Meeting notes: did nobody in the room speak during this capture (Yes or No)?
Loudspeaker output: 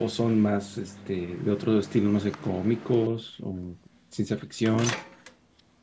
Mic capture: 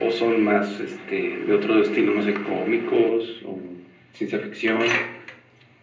Yes